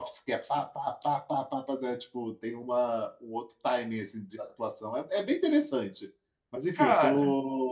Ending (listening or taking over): listening